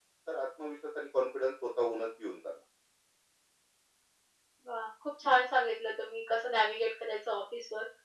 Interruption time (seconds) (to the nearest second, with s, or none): none